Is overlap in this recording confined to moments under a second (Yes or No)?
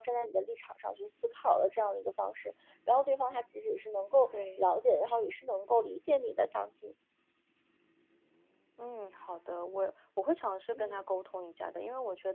Yes